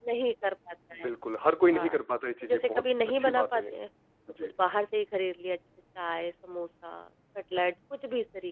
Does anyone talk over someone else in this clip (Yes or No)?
Yes